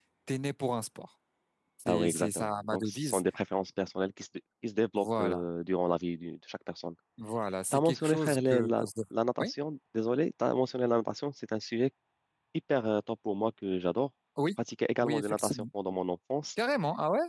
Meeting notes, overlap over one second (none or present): present